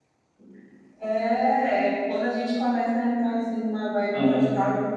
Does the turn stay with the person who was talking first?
Yes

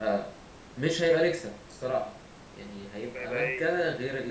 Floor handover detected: No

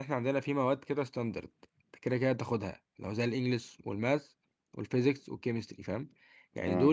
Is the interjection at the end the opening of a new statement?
No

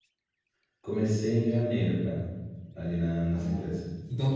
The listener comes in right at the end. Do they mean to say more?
Yes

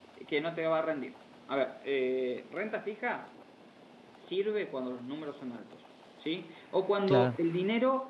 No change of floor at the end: Yes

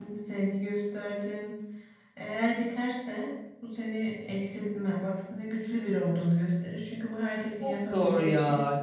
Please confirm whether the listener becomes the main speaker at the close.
Yes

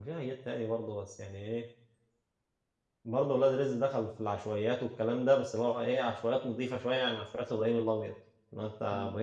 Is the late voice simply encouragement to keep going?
Yes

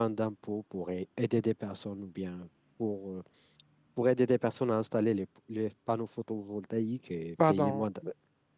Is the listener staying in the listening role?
No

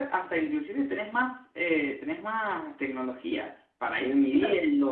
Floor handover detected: Yes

